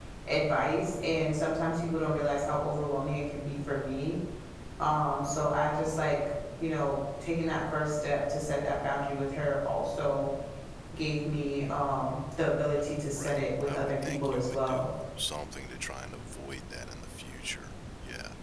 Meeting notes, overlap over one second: present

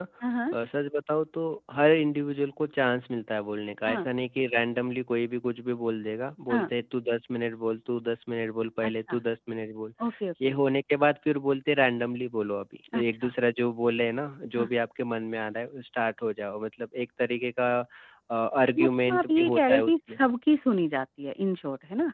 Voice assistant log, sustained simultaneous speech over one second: present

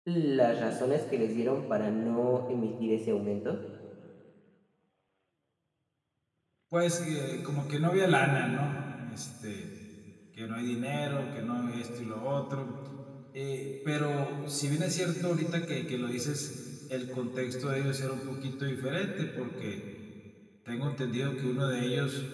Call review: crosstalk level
none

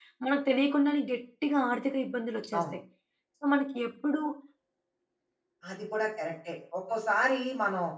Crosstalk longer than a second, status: none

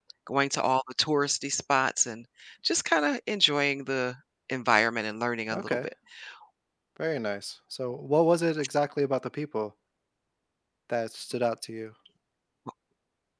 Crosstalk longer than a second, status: none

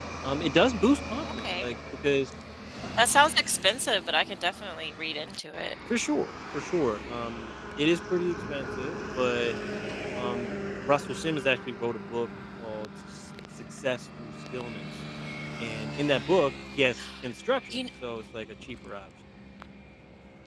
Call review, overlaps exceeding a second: none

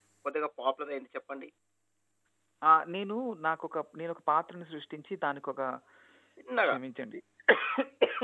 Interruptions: none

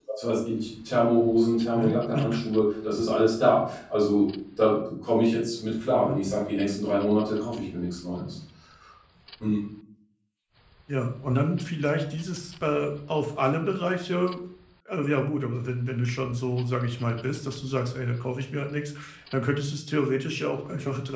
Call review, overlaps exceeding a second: none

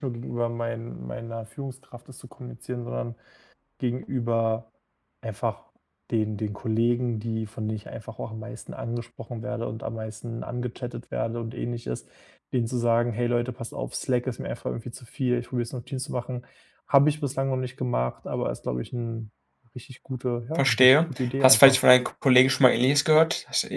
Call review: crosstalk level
present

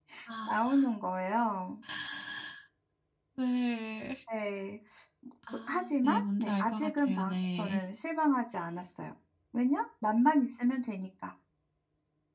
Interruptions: present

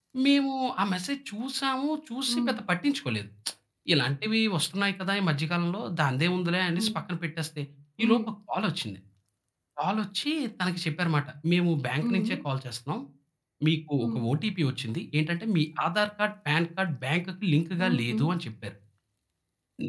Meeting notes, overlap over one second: none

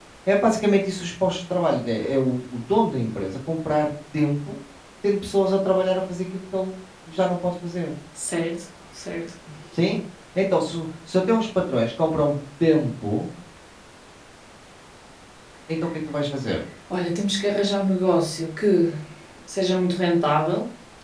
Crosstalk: none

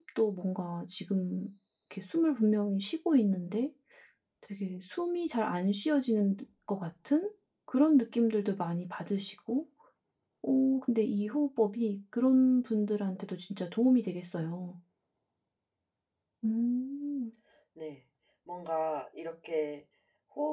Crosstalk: none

